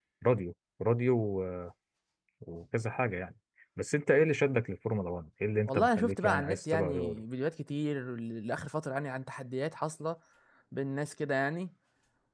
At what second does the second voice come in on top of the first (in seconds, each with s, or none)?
5.7 s